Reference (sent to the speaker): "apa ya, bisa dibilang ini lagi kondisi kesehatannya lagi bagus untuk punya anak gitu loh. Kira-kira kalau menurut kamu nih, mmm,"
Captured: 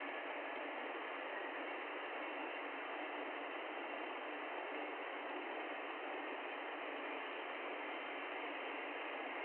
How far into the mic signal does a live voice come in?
none

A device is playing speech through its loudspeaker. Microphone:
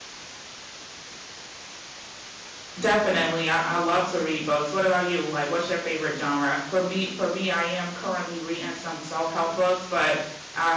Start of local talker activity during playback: 3 s

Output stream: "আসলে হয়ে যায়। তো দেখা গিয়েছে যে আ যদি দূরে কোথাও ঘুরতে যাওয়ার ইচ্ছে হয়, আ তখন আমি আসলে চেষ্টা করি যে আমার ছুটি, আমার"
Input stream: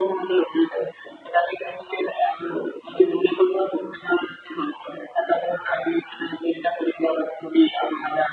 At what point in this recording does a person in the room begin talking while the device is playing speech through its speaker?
none

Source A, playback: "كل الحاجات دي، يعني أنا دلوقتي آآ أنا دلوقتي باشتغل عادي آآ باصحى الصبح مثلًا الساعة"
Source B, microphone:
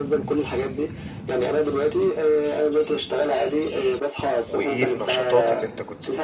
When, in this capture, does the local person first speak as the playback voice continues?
4 s

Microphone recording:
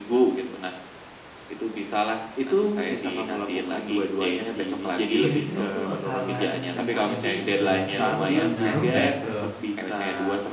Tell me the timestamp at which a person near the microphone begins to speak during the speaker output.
5 s

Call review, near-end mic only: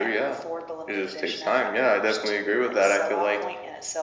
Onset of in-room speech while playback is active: none

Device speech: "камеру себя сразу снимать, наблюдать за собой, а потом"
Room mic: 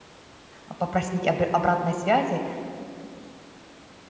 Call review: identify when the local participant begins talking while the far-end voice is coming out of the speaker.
1 s

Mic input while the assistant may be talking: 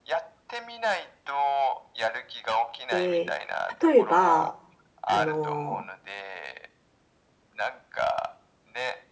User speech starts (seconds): 3 s

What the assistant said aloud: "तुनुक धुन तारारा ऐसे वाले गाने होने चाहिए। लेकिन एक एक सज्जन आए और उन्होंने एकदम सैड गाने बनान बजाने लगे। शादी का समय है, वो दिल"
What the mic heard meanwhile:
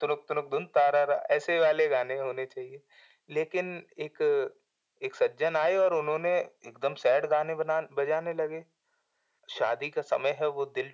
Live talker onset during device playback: none

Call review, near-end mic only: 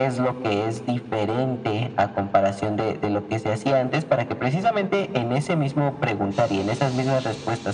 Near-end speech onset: none

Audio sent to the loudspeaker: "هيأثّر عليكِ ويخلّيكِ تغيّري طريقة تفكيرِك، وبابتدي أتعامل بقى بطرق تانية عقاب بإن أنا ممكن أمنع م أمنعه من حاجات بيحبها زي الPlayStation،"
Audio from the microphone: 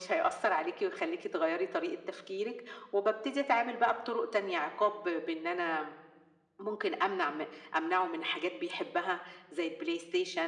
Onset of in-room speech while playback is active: none

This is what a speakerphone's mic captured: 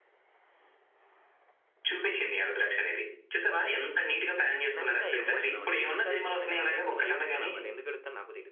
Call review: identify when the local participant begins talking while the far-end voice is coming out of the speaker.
5 s

